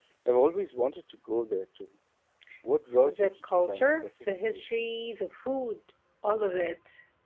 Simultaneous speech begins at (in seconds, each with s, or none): 3.0 s